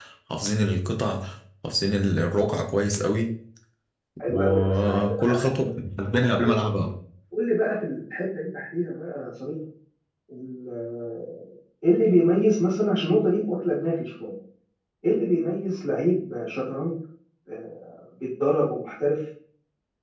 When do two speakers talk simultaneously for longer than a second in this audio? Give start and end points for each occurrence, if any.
4.3-5.7

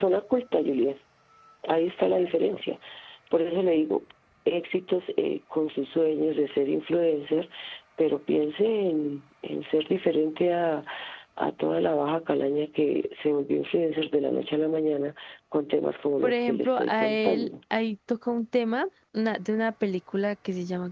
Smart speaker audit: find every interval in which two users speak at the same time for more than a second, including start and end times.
16.2-17.5

